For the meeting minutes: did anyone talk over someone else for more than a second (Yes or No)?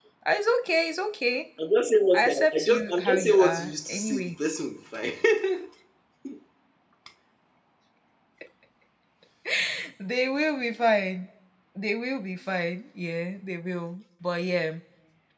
Yes